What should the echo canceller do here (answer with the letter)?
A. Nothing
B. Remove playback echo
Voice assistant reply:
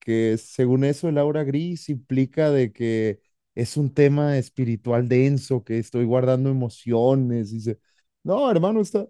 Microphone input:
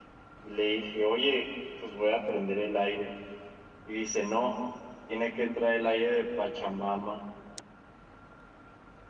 A